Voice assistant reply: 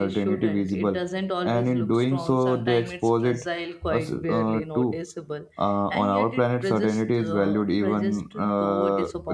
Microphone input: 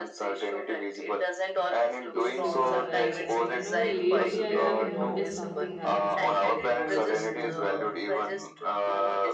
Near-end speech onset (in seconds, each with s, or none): 2.1 s